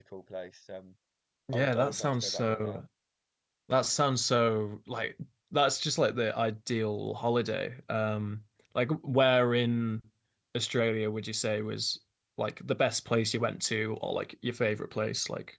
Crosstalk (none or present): present